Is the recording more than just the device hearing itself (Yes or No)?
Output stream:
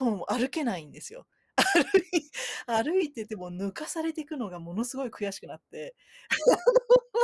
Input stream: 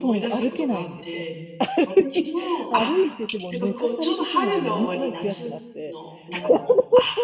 Yes